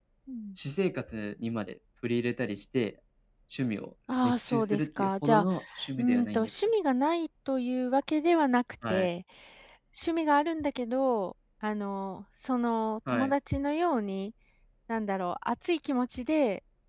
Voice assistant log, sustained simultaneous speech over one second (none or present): present